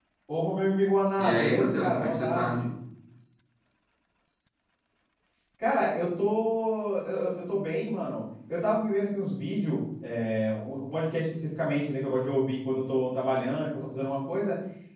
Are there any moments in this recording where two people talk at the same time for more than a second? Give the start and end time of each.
1.2-2.6

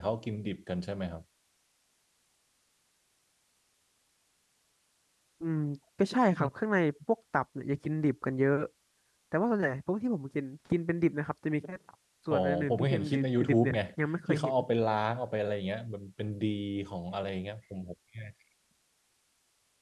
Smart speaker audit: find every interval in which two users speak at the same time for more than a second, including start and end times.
12.3-13.8

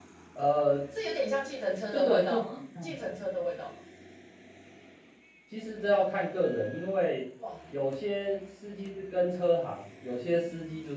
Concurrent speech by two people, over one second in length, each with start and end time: 1.9-3.1

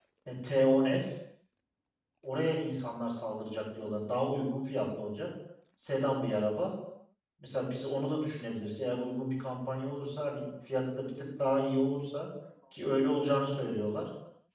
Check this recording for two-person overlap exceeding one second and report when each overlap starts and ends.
none

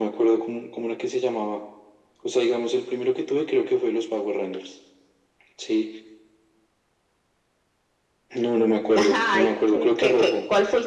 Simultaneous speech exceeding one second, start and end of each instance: 8.9-10.3

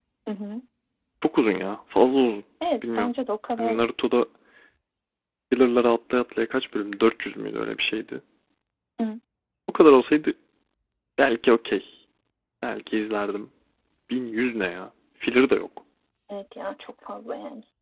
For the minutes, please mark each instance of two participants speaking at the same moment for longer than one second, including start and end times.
none

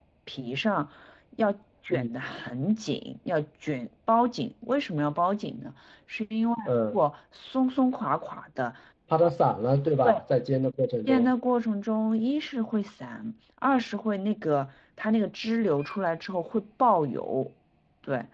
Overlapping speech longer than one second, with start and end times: none

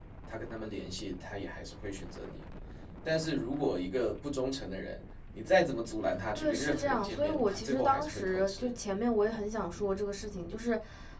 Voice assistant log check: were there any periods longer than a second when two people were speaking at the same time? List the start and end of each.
6.3-8.7

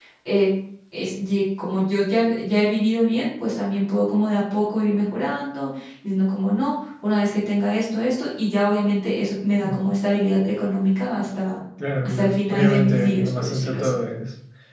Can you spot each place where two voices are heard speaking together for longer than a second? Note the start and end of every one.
12.0-14.0

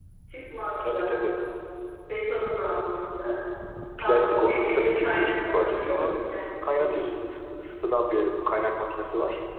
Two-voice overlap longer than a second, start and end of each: 4.0-6.1

